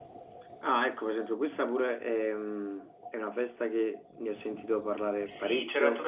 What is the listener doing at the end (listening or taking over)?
taking over